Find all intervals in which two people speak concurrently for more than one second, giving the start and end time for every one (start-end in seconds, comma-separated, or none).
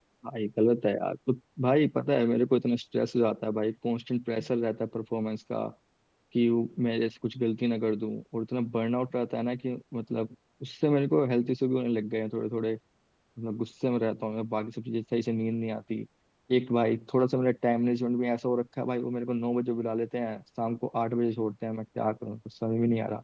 none